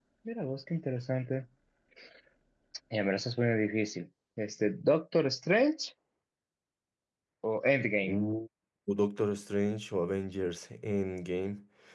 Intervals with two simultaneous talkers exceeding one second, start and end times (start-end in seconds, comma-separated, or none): none